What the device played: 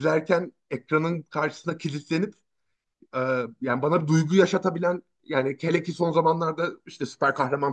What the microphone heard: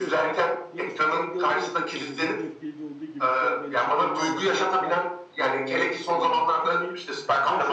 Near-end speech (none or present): present